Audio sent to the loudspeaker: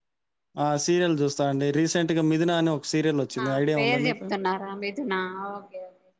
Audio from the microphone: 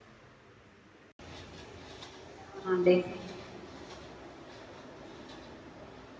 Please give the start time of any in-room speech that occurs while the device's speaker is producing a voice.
2.5 s

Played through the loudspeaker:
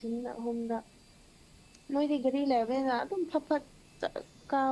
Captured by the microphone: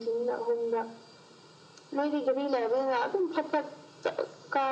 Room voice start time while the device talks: none

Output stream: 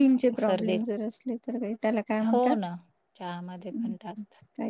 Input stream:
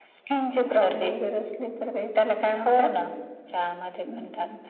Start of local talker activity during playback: none

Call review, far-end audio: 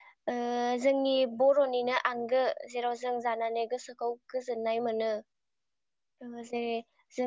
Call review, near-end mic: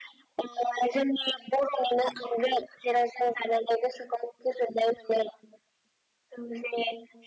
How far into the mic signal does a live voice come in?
none

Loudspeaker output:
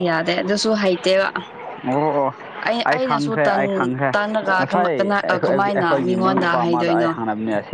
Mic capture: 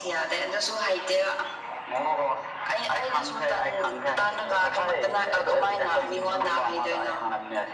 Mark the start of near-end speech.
none

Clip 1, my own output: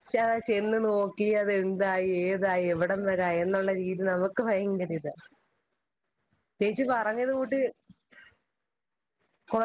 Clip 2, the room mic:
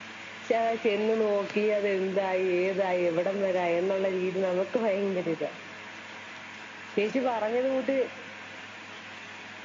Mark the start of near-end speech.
none

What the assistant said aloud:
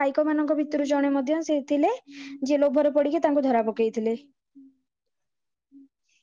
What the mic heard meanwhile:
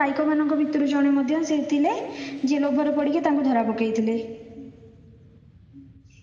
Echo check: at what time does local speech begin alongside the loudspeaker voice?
none

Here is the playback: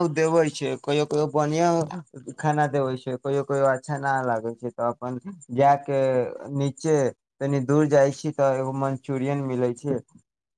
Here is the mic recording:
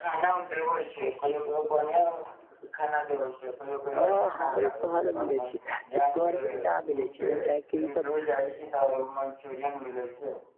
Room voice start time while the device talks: 4.0 s

